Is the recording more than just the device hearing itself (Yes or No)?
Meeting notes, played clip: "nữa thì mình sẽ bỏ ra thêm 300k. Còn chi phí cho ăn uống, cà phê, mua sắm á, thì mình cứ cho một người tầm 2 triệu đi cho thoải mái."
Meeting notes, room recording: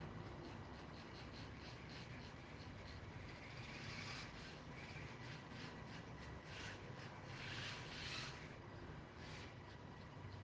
No